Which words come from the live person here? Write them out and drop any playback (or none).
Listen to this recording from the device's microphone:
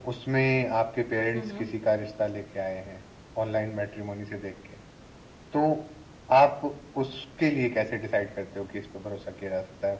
हम्म